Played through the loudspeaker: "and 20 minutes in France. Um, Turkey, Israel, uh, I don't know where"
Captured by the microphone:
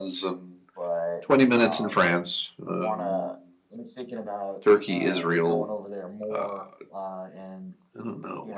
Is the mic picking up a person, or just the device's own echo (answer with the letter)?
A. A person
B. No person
A